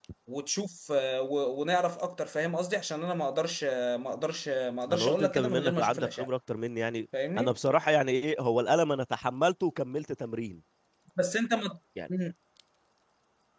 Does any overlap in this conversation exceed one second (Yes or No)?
Yes